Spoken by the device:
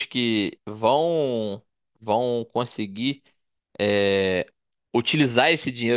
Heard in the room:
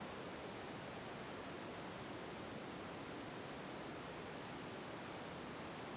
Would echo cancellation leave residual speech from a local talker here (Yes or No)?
No